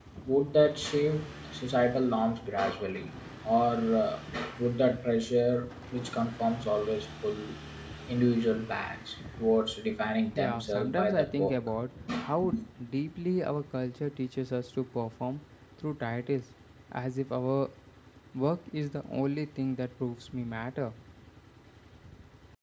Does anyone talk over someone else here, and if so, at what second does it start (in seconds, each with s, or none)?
10.4 s